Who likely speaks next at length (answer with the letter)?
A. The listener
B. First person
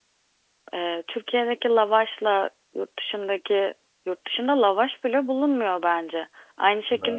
B